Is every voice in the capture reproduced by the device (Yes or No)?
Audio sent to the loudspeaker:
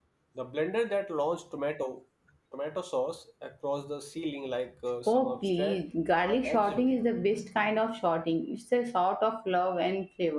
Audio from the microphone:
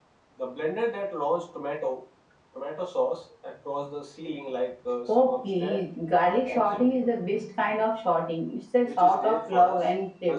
No